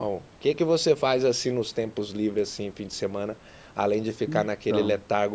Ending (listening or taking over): listening